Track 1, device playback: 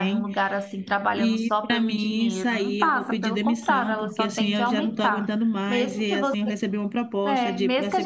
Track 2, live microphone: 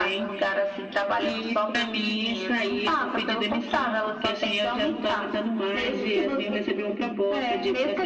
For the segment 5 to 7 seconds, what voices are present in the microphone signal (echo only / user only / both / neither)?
echo only